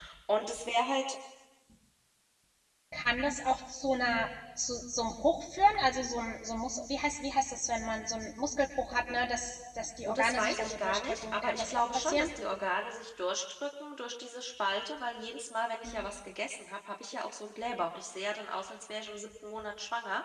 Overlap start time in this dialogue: 10 s

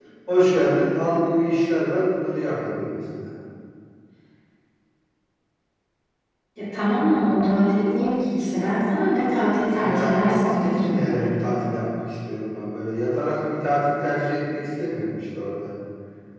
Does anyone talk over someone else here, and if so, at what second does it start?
10 s

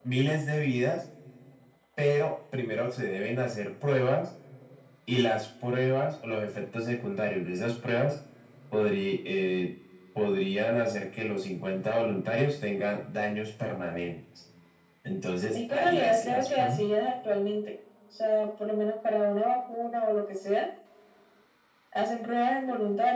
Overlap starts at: 16 s

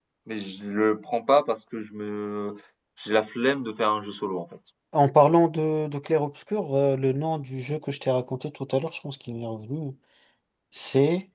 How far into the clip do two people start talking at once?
none

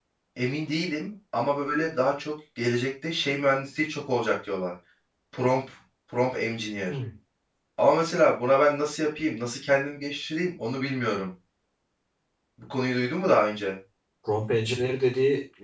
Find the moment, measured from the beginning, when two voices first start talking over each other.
none

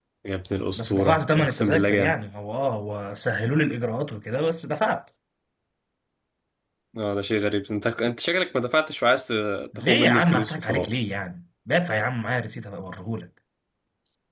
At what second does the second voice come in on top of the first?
1 s

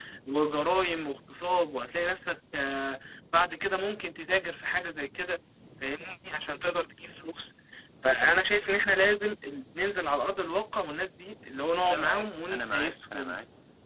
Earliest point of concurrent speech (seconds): 12 s

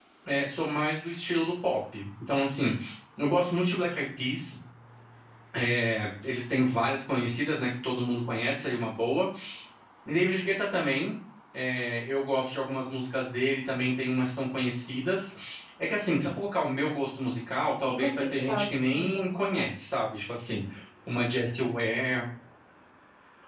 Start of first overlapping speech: 18 s

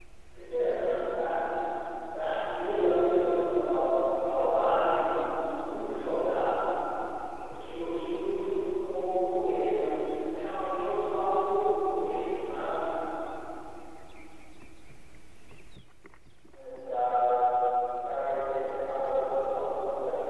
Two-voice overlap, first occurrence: none

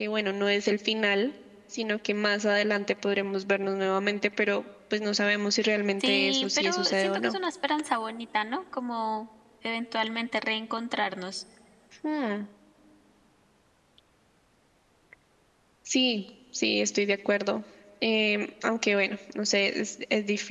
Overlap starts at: 6 s

